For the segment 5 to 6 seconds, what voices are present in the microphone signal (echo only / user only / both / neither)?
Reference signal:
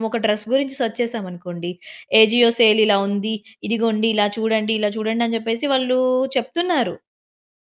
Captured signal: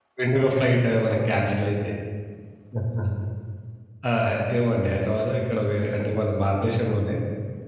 user only